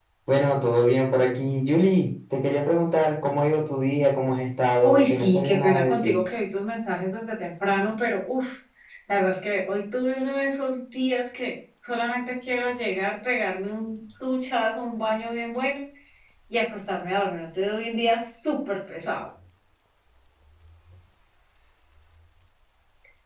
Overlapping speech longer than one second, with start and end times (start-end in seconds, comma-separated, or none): 4.8-6.2